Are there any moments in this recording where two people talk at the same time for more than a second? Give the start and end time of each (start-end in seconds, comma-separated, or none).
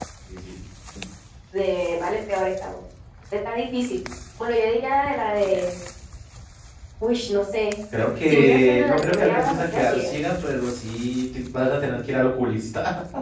8.3-10.1